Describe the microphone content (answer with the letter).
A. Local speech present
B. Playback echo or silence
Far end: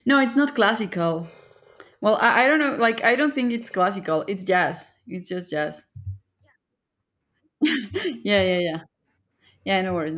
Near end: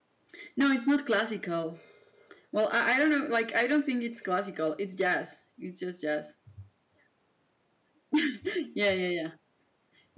B